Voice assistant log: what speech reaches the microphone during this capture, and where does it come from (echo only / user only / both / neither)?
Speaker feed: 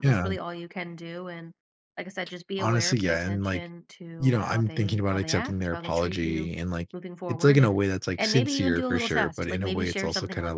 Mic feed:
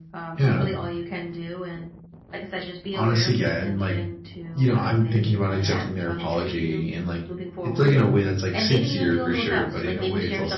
echo only